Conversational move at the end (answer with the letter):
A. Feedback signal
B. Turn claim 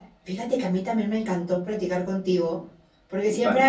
A